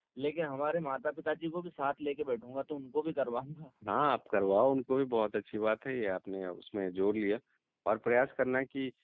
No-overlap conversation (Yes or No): Yes